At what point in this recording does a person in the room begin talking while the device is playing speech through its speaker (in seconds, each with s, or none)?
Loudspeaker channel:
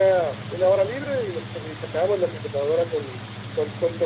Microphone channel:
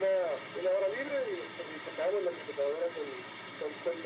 none